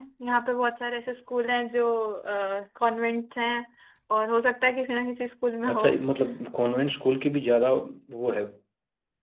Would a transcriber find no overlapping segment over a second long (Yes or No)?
Yes